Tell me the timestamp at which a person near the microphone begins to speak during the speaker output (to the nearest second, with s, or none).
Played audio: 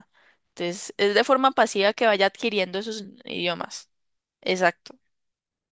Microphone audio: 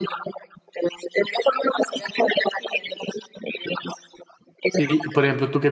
5 s